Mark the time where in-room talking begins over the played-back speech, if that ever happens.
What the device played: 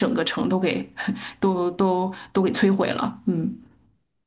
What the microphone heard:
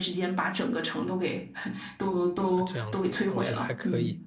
2.5 s

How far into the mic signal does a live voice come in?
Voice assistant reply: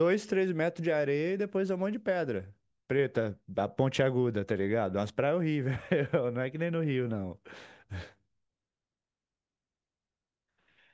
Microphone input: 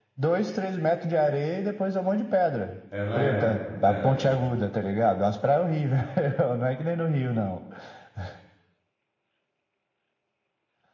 2.9 s

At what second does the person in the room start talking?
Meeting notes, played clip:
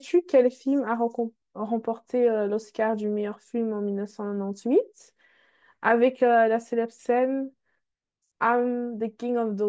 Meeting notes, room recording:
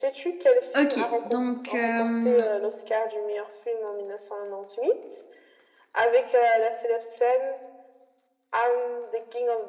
0.7 s

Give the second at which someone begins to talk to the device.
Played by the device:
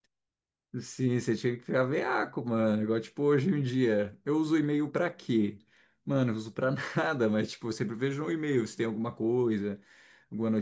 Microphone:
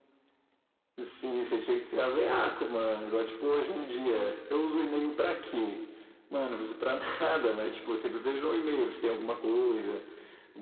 none

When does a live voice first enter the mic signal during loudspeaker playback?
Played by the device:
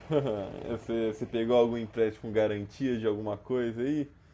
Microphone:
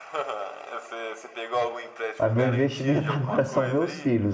2.2 s

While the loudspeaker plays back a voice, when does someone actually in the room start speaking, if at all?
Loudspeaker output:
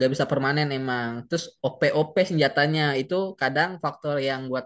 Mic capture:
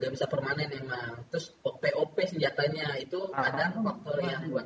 3.2 s

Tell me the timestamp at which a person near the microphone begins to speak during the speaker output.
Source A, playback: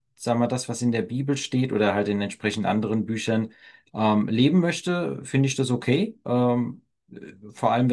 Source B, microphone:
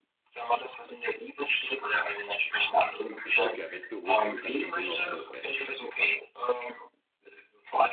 3.2 s

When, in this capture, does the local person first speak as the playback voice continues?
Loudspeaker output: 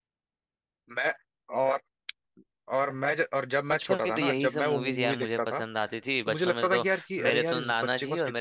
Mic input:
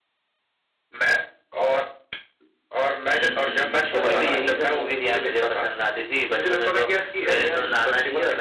3.1 s

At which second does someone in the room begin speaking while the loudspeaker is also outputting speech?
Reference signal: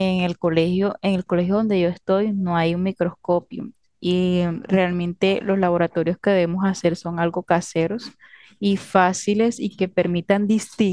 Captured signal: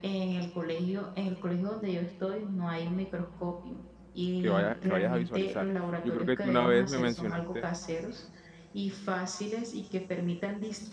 4.4 s

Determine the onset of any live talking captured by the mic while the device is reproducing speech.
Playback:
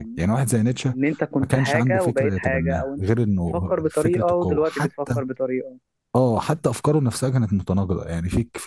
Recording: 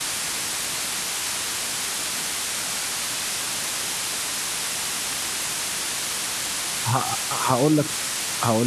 6.9 s

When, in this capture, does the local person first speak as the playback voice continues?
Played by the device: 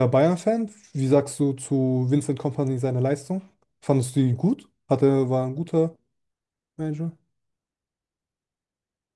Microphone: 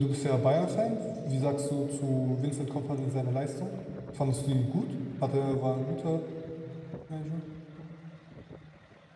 none

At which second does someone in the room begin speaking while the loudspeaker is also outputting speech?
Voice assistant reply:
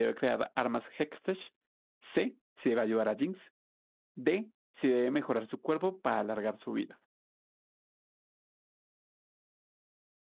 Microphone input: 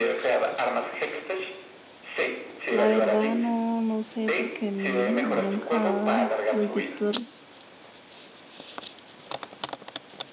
2.6 s

